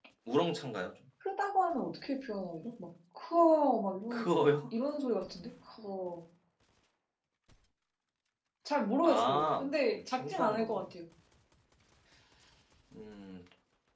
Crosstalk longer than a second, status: present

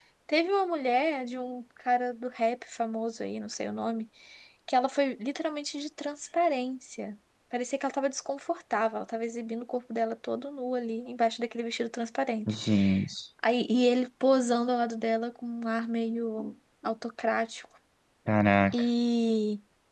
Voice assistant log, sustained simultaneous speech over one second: none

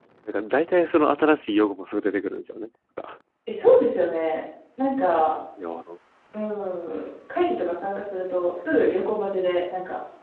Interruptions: none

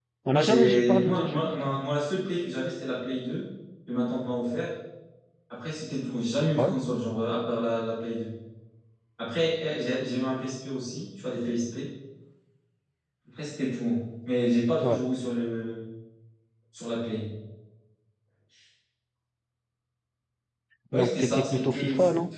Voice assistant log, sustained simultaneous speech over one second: present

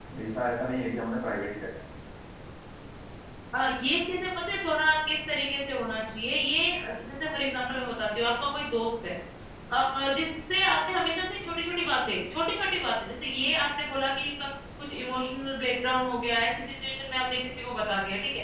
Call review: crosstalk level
none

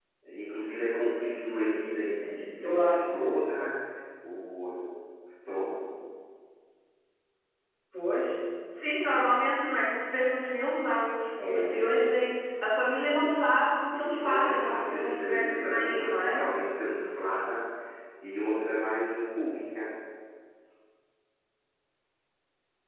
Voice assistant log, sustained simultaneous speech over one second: present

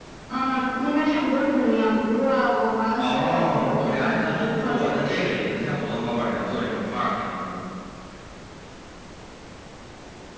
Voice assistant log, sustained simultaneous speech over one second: present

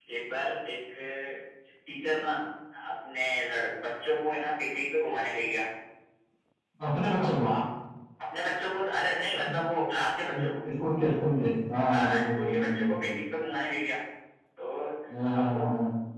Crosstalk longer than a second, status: present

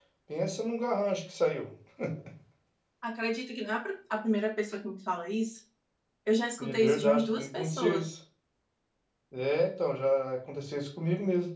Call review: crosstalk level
present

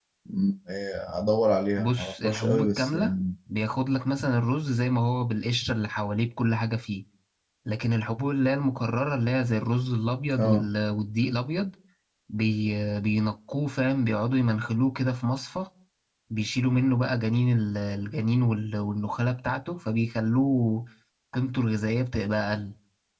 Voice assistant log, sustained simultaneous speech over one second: present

